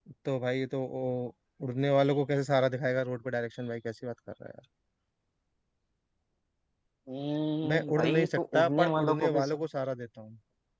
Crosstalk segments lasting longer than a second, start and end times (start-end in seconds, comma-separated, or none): 7.7-9.6